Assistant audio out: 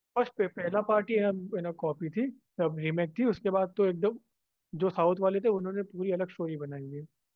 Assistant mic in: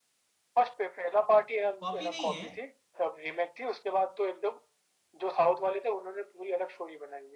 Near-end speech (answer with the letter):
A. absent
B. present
B